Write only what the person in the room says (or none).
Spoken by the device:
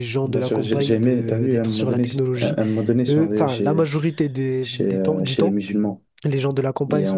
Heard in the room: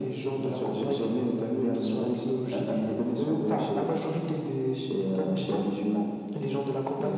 none